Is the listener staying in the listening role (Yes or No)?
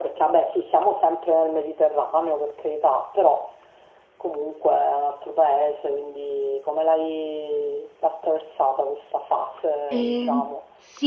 No